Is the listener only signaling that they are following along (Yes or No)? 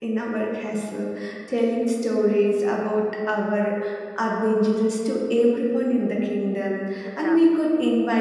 Yes